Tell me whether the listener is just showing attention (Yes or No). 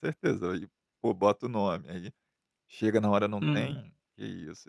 Yes